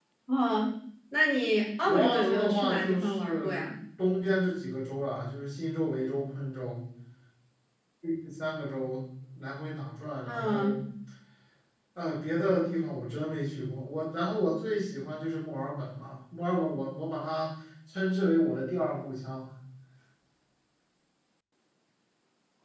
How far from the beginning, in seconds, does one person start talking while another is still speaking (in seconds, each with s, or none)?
1.8 s